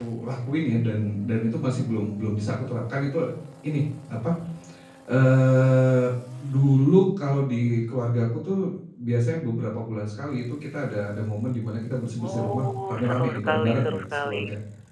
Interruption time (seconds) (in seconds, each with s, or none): 12.2 s